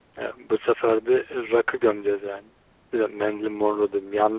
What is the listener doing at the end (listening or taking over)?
listening